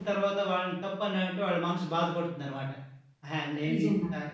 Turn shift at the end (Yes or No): No